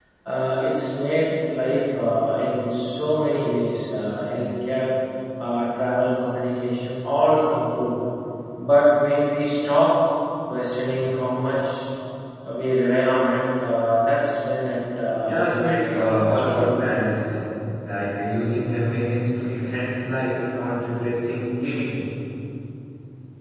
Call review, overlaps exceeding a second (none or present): present